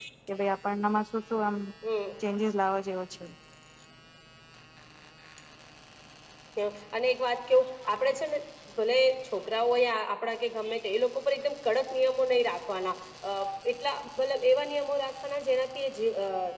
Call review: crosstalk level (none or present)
none